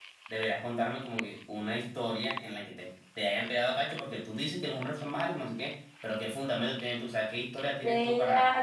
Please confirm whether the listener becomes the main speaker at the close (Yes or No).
Yes